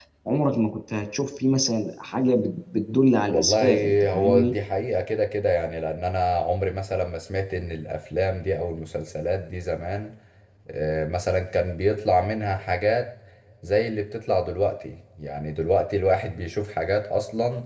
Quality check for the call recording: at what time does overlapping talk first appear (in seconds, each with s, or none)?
3.3 s